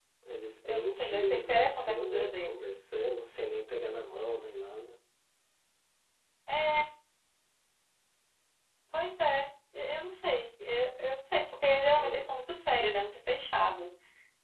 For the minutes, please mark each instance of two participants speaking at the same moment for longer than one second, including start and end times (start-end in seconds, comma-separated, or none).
0.6-2.7